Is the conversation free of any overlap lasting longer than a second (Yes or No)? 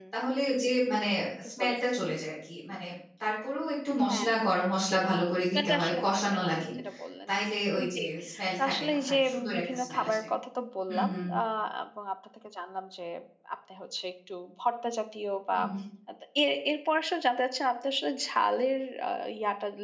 No